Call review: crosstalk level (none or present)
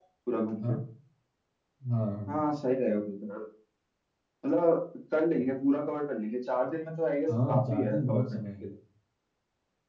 present